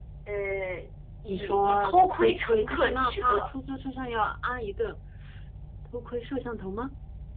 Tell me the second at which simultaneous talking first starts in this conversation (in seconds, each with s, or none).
1.3 s